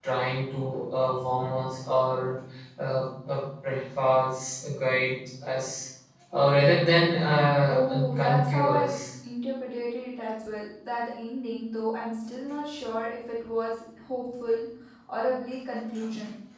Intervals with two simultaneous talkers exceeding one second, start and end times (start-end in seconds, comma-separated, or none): 7.7-8.9